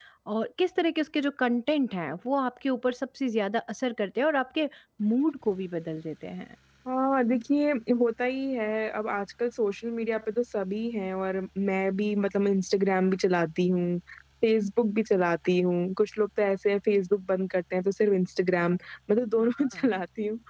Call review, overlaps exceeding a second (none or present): none